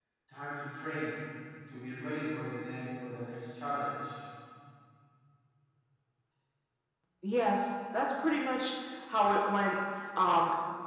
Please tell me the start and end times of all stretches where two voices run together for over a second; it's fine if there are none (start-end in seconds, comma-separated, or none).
none